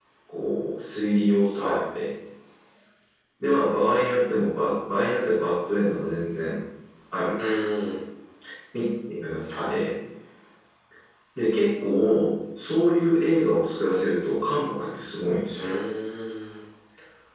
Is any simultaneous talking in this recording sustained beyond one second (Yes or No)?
No